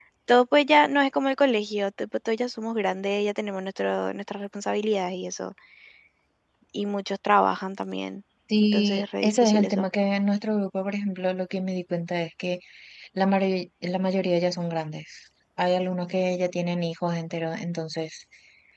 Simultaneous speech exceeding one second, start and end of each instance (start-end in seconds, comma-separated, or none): 8.6-9.9